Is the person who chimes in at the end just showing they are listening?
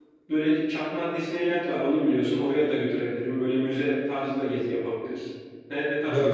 No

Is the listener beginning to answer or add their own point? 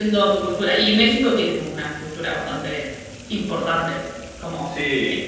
Yes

